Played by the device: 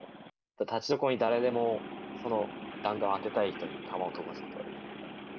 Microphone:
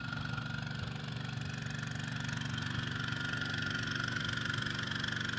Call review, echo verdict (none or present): none